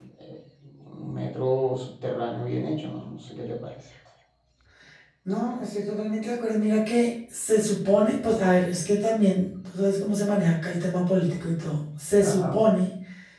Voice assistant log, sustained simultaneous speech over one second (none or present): none